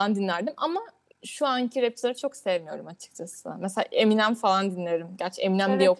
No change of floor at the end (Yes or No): No